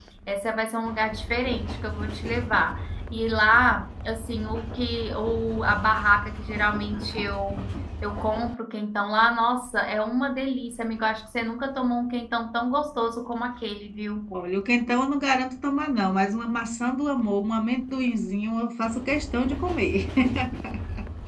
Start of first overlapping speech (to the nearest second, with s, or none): none